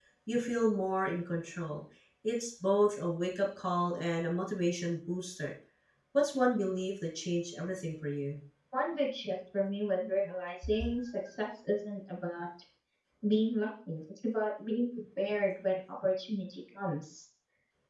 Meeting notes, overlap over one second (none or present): none